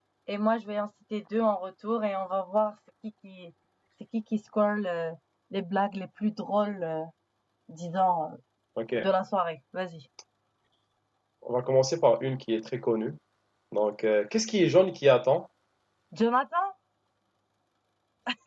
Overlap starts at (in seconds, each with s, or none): none